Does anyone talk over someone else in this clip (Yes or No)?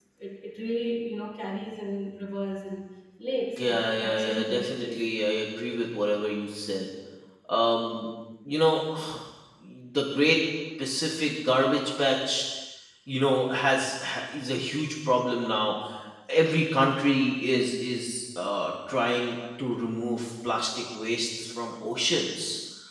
Yes